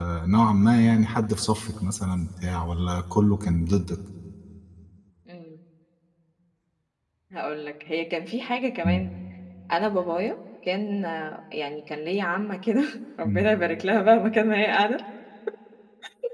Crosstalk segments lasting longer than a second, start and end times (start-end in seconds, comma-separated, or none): none